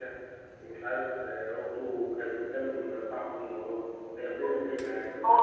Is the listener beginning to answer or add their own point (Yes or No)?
Yes